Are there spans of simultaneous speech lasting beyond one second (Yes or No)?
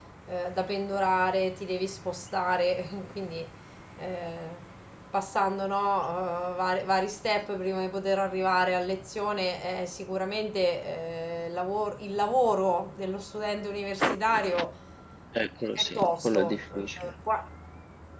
Yes